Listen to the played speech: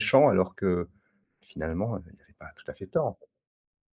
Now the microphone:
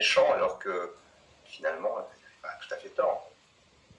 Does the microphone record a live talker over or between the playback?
No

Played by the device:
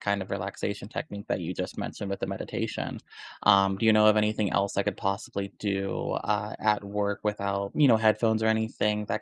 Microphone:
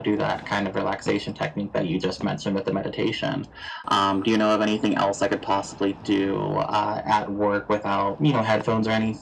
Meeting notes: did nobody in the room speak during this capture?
Yes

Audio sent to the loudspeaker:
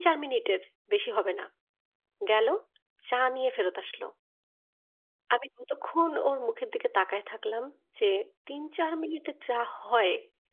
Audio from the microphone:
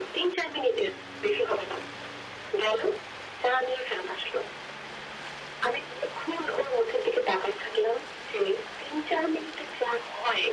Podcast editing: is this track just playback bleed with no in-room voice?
Yes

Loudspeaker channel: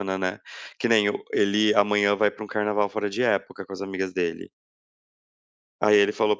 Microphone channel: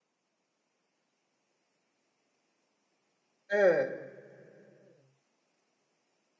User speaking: Yes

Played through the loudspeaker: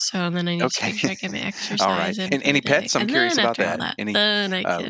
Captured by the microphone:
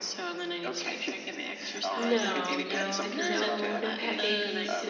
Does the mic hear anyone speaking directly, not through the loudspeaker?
Yes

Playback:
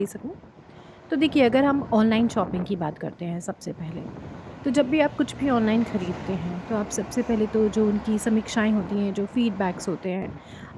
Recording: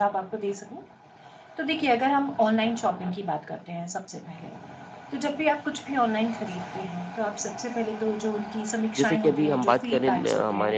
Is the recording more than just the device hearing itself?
Yes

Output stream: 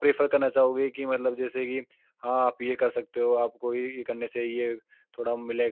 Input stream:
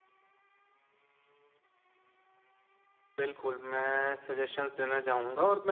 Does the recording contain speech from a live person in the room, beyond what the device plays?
Yes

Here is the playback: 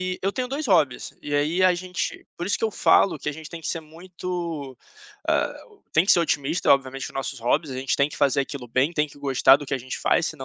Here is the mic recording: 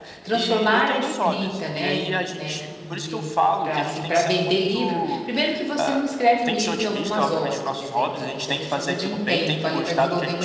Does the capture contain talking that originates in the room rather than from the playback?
Yes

